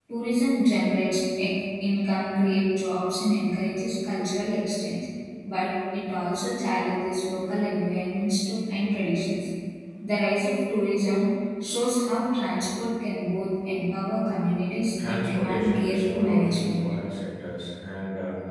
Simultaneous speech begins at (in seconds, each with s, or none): 15.0 s